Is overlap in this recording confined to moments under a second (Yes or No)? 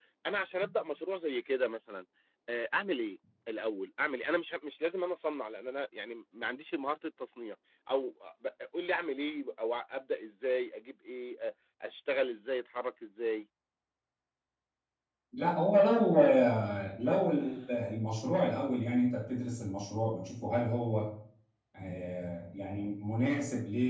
Yes